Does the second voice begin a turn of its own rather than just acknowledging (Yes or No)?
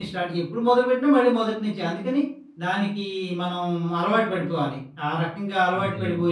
No